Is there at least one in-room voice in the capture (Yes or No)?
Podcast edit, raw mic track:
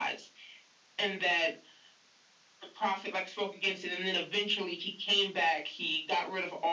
No